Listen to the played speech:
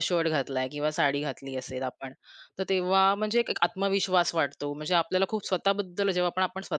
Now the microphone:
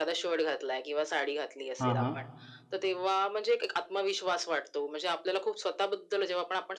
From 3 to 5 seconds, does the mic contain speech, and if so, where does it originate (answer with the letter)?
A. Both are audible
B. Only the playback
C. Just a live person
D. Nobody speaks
B